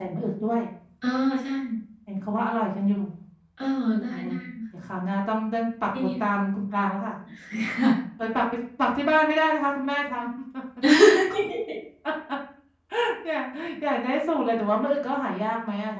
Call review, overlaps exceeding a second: none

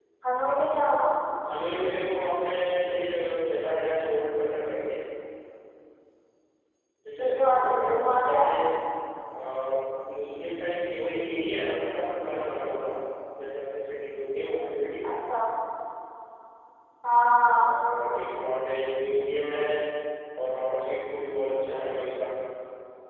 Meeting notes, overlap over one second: present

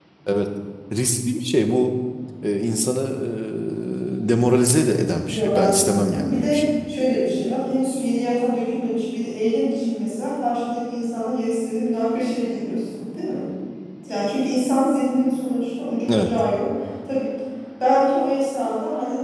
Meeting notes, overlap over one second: present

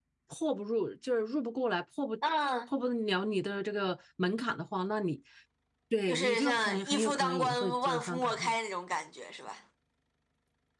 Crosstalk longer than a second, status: present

